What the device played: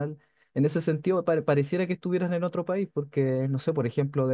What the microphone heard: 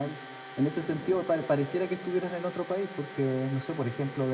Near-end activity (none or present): none